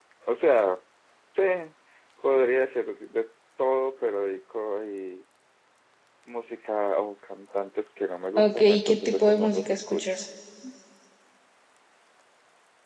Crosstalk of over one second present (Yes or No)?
Yes